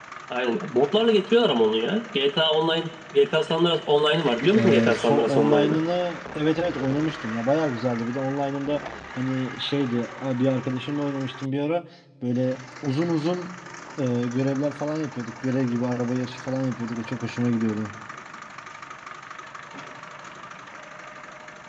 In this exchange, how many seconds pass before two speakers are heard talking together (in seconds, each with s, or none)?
4.5 s